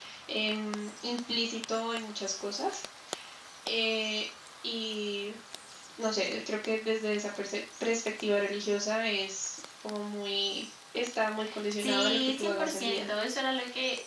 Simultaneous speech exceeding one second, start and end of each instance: 11.8-13.1

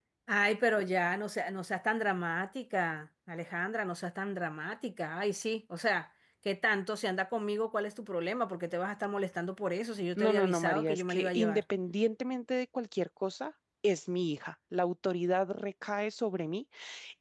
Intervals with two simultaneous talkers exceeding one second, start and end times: 10.2-11.6

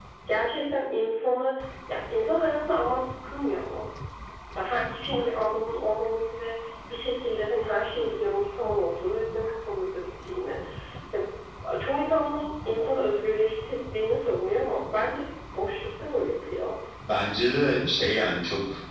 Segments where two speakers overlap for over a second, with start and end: none

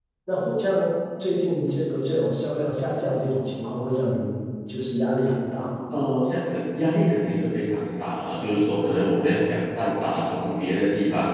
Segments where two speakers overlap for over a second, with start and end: none

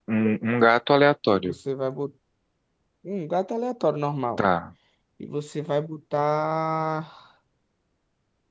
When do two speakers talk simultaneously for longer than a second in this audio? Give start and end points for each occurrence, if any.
none

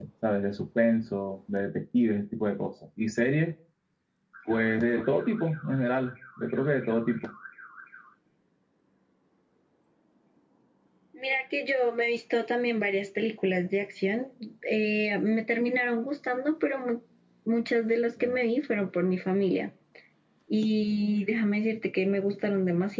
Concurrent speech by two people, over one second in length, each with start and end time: none

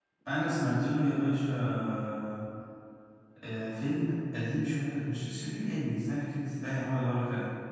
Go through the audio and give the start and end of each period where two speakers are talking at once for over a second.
none

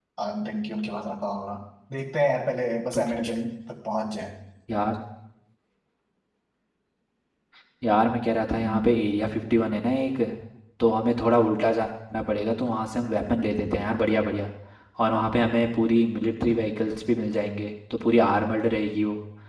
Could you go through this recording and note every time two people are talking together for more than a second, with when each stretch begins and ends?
none

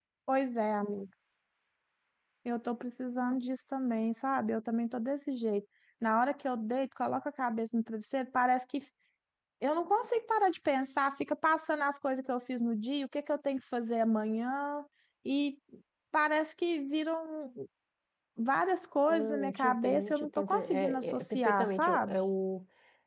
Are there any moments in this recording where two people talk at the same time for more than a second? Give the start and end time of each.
19.1-22.2

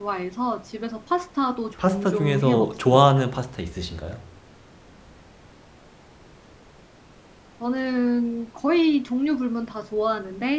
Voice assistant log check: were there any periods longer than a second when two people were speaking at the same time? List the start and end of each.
1.8-3.0

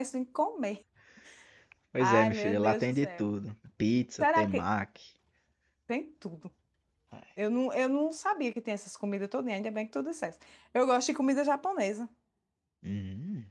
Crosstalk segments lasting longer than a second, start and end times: 2.0-3.3

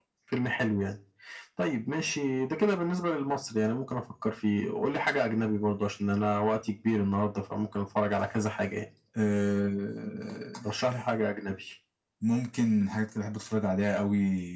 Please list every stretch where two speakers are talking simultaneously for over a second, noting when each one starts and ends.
none

